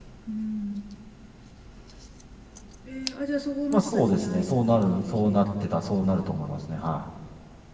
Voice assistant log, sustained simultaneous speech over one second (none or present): present